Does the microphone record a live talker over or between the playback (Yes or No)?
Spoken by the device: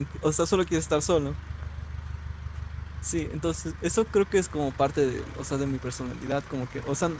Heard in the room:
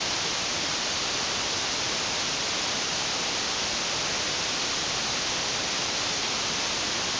No